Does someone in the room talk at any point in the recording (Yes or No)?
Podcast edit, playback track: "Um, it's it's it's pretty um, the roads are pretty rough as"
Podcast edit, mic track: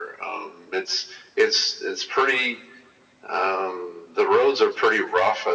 No